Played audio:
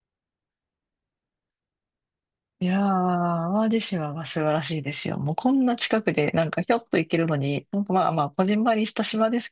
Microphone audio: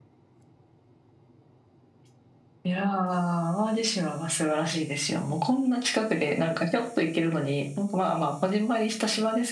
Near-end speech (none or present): none